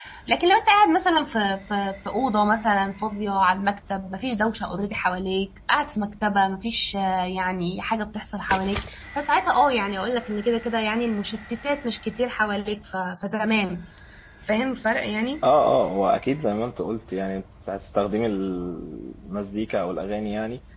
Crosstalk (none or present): none